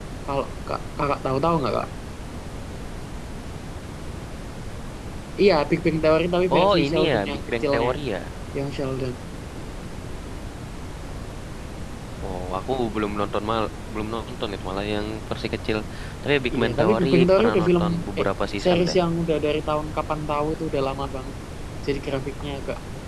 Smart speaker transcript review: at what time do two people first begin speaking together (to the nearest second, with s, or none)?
7 s